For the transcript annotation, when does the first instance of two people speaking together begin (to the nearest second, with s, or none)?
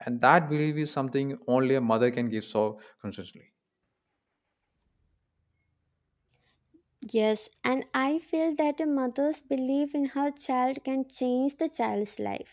none